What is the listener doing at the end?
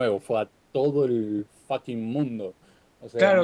taking over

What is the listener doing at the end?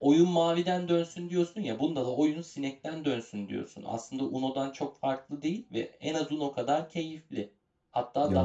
listening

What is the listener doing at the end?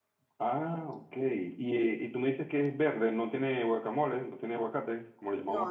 taking over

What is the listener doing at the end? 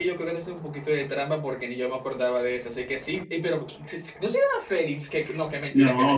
taking over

